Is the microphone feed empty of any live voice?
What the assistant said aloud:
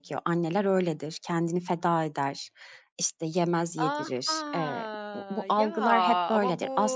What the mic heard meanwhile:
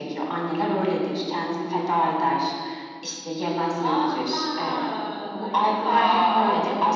Yes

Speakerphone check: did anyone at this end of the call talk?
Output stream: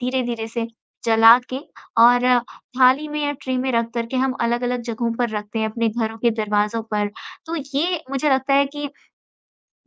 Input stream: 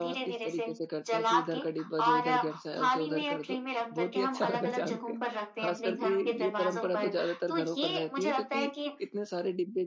Yes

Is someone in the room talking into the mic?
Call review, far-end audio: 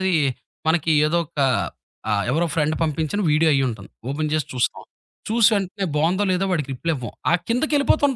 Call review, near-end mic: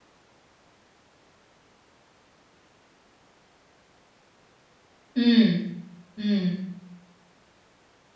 Yes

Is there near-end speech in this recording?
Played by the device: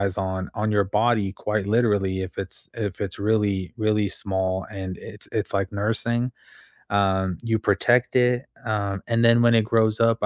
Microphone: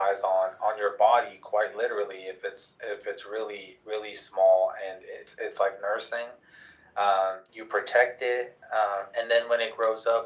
No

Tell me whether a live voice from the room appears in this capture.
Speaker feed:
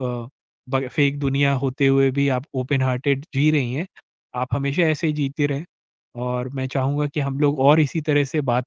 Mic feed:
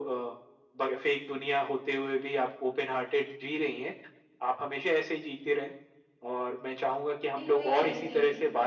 Yes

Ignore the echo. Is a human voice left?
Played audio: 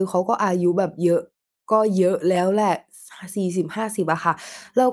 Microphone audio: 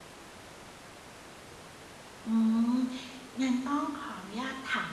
Yes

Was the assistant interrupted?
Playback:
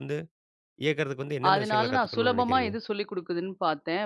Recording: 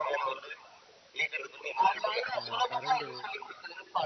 Yes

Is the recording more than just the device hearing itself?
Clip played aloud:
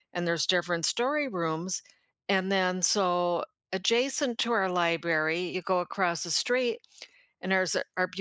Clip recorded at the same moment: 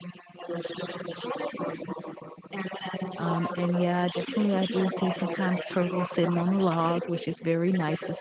Yes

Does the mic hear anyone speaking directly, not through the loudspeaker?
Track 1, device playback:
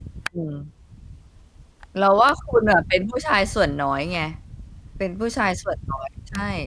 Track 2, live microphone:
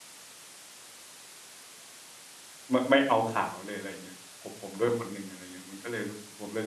Yes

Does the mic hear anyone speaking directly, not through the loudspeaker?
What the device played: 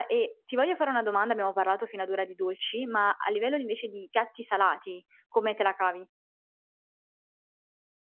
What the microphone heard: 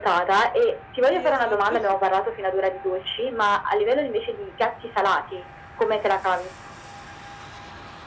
Yes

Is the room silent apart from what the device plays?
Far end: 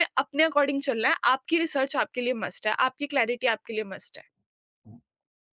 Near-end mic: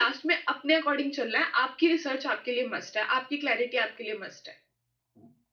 Yes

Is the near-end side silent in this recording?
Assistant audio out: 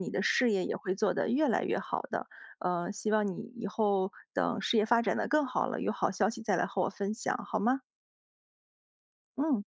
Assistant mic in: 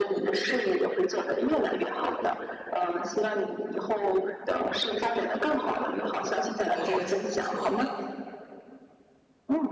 No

